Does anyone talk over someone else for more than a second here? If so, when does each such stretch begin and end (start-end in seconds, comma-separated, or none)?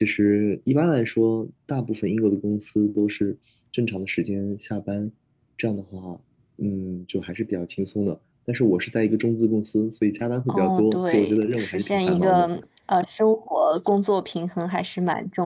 10.5-12.5